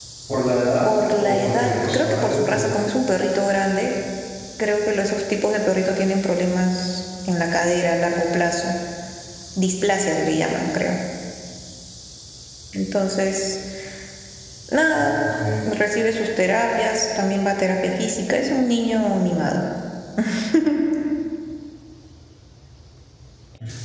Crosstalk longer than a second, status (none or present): present